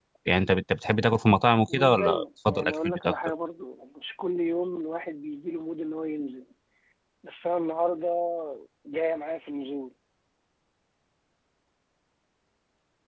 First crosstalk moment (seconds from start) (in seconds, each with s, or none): 1.7 s